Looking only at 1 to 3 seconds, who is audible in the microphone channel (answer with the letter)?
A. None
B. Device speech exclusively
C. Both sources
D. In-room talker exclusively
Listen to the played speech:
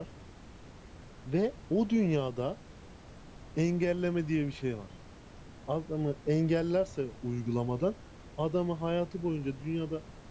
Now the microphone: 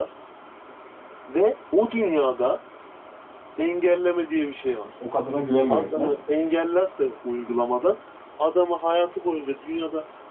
B